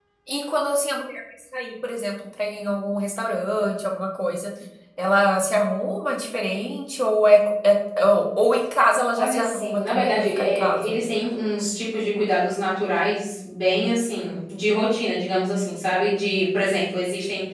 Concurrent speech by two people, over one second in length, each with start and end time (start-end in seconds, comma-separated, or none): 9.2-10.9